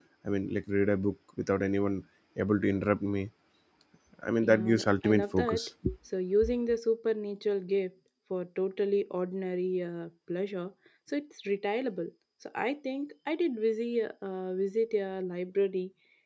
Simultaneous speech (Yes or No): Yes